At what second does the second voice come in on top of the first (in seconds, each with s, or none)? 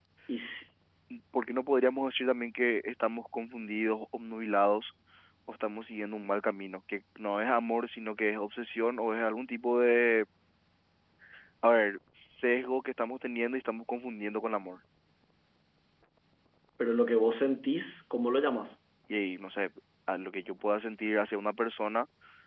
none